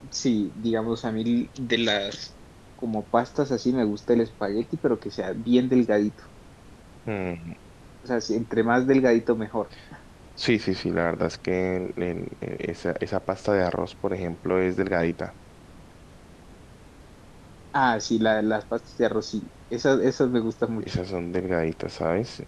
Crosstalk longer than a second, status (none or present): none